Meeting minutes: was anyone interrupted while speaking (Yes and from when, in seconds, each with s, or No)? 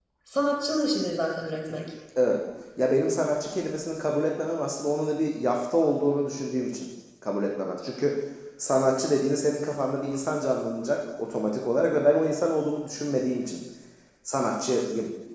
No